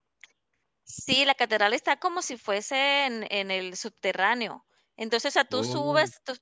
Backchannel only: Yes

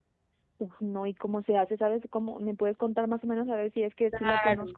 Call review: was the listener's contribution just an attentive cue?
No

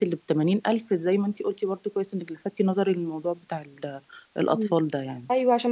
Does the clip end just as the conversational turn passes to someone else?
Yes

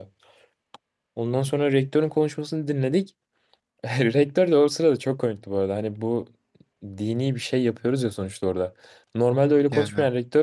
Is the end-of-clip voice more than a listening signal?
No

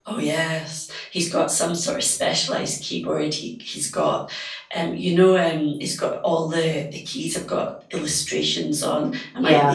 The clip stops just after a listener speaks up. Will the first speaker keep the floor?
Yes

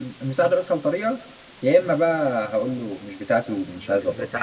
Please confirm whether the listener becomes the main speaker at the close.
Yes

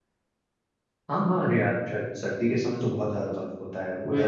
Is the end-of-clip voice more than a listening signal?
No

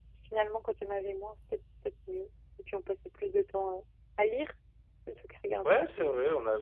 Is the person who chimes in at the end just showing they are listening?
No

